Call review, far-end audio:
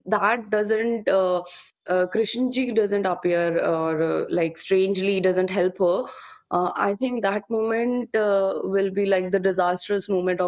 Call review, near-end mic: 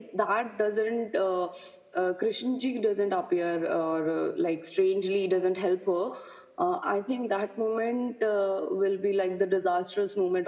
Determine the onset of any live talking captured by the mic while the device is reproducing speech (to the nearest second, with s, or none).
none